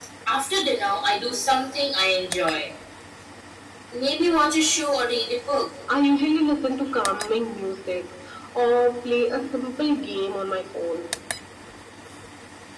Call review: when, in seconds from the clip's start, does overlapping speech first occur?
none

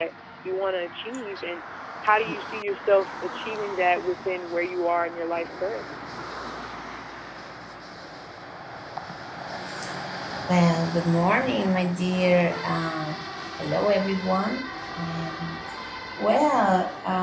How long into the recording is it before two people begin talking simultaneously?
none

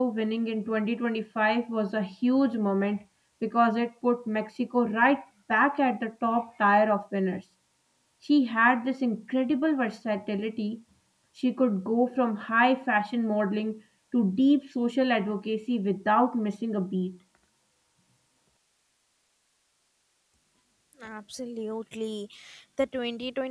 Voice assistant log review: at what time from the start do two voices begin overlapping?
none

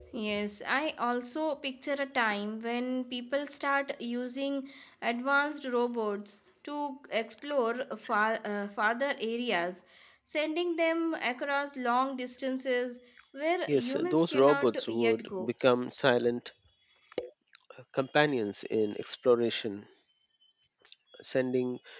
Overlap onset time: 13.7 s

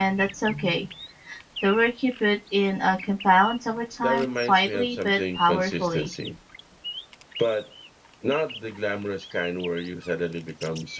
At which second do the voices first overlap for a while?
4.0 s

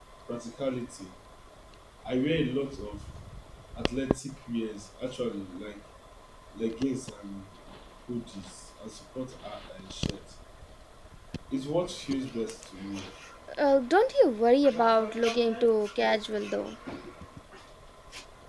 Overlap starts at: none

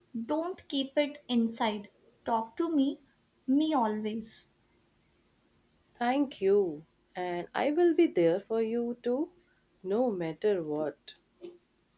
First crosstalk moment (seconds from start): none

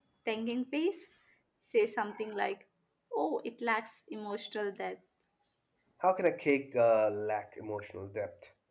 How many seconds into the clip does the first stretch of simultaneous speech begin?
none

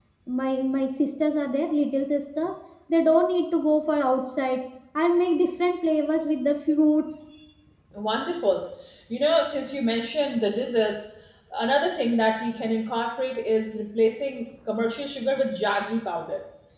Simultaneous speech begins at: none

